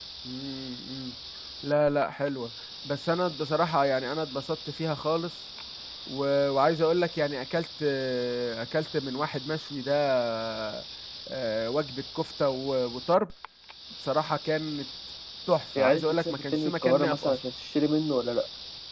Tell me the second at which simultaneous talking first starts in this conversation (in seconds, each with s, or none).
15.8 s